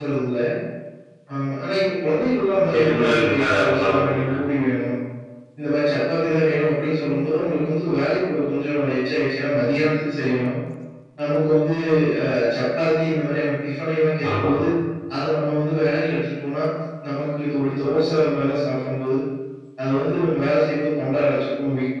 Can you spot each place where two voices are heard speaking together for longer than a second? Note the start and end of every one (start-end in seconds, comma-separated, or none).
2.7-4.3